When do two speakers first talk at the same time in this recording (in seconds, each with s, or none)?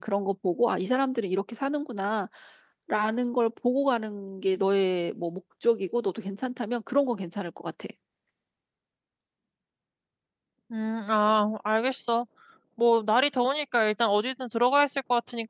none